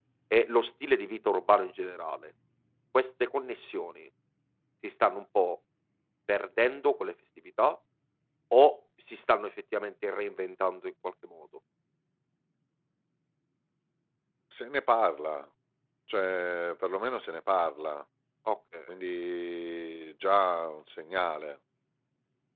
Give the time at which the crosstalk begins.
none

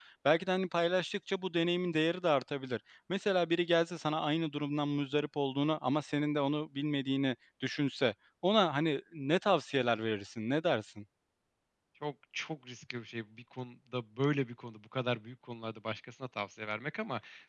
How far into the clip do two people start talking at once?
none

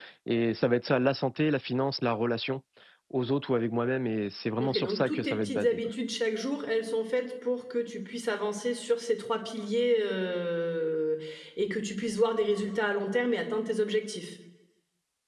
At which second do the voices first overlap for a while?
4.6 s

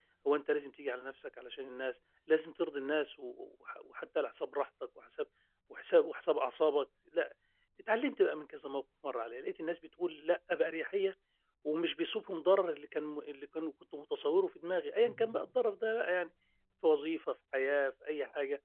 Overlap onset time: none

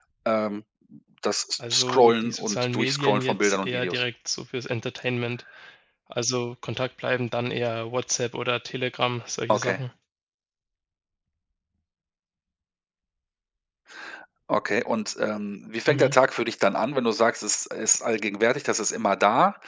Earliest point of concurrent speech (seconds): 1.7 s

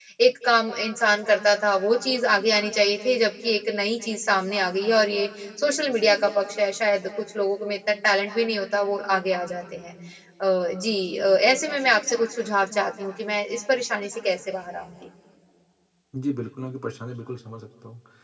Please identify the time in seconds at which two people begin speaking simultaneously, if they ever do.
none

